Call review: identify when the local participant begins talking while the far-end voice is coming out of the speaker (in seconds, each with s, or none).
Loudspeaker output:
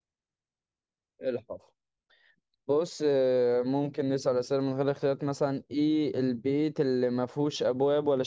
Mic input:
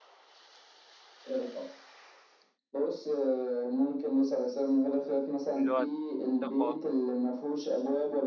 5.5 s